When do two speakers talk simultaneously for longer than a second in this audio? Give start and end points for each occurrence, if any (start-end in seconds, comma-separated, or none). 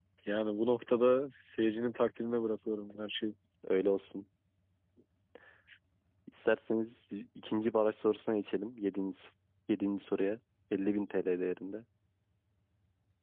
none